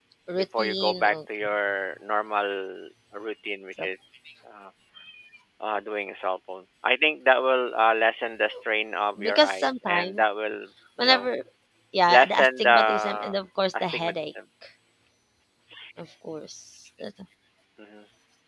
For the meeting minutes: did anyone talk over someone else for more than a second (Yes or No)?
Yes